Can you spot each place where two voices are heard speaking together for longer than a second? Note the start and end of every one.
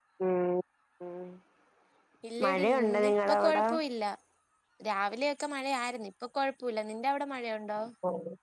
2.4-3.6

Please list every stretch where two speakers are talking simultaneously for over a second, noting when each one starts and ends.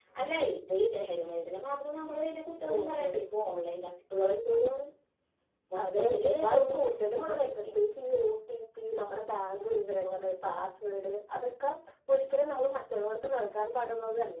6.0-7.8

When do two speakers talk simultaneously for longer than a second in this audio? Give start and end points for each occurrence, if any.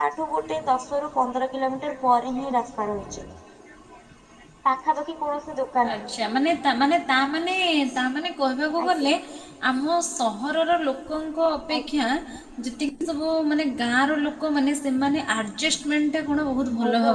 none

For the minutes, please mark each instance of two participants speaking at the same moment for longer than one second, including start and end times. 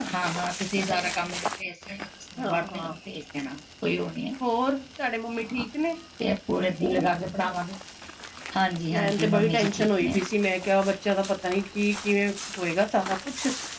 8.9-10.2

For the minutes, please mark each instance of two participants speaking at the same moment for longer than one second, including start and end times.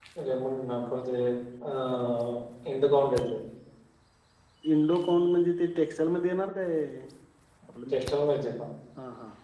none

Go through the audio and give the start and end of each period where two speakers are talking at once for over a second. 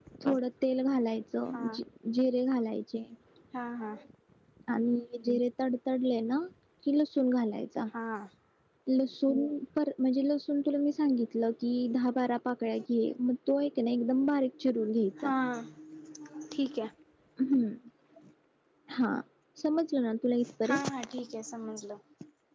none

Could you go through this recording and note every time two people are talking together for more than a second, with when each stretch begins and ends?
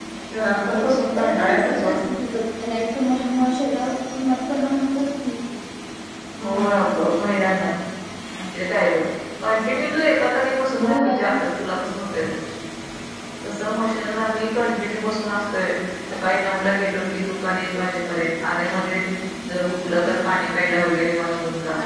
0.5-2.0

